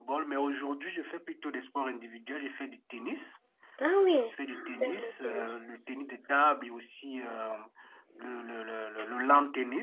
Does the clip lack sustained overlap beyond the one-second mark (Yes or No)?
No